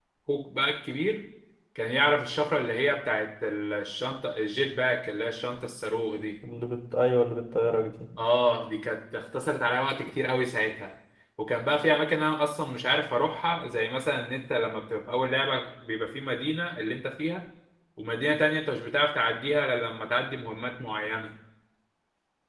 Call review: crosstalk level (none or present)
none